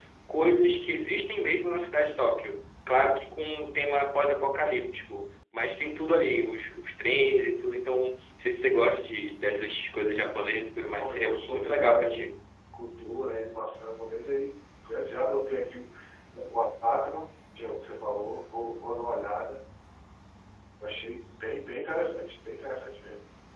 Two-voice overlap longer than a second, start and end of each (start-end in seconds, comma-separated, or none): 10.9-12.3